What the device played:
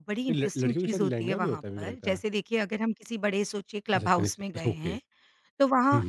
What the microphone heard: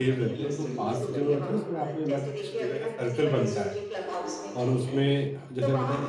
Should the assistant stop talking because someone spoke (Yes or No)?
Yes